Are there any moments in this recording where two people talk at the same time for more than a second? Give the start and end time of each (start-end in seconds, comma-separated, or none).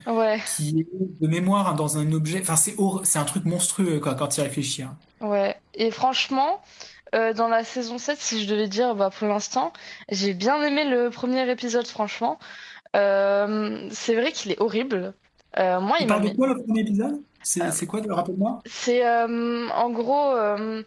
none